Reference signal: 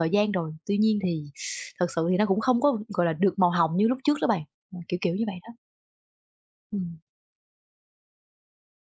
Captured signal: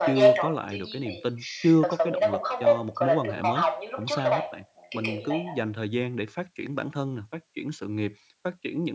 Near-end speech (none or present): present